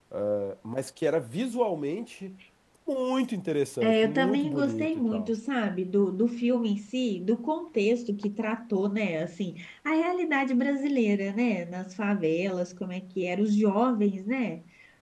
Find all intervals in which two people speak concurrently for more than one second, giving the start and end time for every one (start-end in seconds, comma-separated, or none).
3.8-5.3